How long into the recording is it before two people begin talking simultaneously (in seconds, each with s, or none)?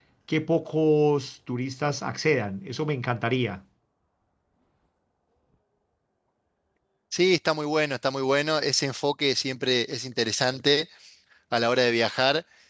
none